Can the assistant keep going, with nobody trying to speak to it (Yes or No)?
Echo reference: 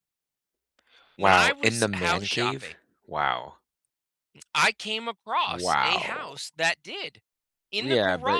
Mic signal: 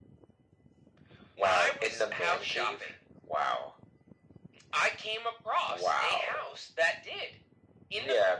Yes